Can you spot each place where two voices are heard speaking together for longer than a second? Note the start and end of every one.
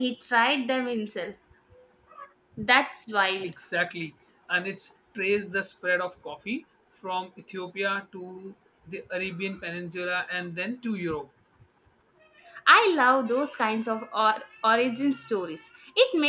none

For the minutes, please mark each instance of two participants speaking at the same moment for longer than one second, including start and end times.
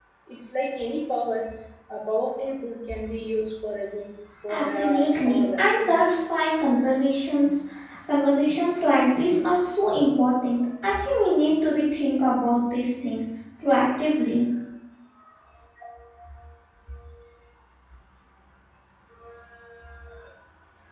4.5-6.0

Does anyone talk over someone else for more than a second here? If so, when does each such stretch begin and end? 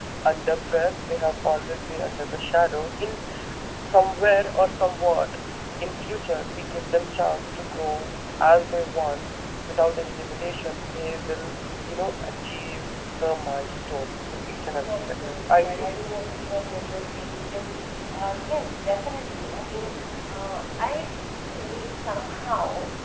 14.9-16.1

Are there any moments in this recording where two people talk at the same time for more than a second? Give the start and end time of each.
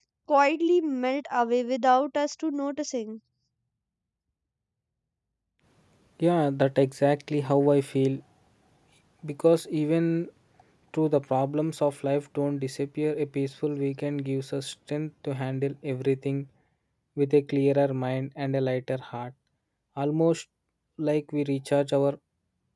none

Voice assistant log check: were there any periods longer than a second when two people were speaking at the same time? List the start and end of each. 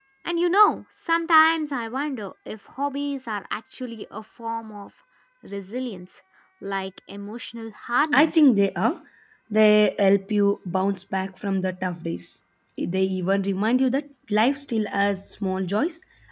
none

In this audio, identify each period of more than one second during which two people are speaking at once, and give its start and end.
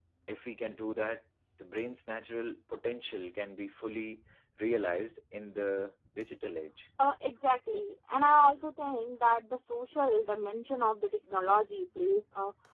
none

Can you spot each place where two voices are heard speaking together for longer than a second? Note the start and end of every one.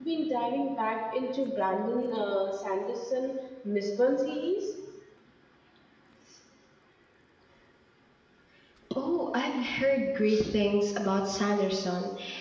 none

